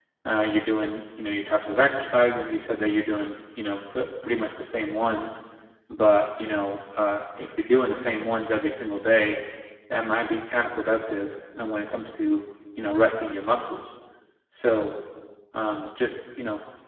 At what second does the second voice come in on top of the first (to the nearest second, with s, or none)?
none